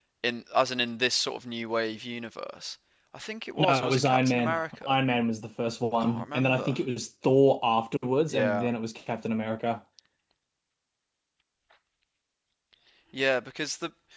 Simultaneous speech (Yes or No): Yes